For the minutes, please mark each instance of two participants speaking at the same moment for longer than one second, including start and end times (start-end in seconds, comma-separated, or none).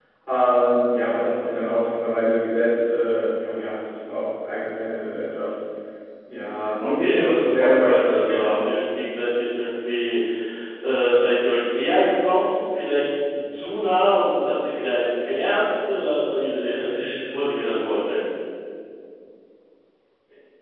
6.8-8.6